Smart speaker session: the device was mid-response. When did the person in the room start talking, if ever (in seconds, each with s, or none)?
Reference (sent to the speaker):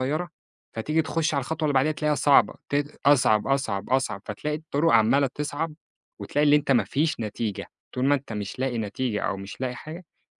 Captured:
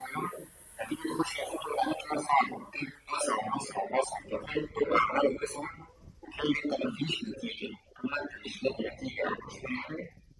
none